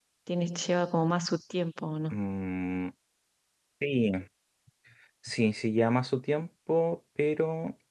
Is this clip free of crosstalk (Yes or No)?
Yes